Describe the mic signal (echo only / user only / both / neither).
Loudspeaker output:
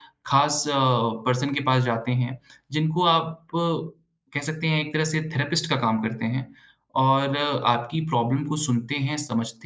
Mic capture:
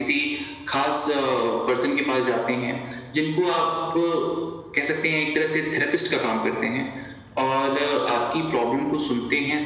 echo only